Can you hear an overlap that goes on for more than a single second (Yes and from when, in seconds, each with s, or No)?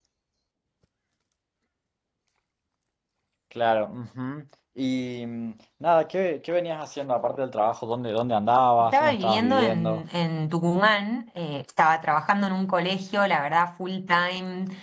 Yes, from 8.8 s